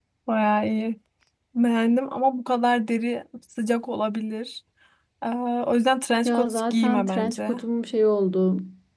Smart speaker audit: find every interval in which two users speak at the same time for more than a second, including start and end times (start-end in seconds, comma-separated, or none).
6.2-7.5